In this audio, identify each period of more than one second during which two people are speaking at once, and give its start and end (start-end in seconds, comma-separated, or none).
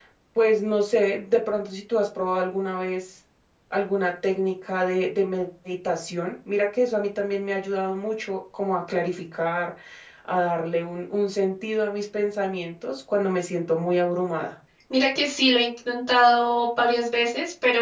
none